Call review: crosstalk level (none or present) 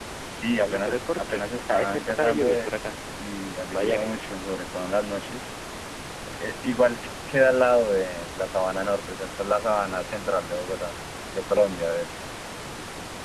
present